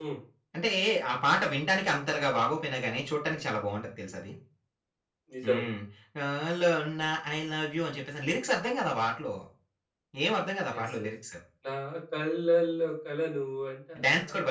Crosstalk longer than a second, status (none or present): none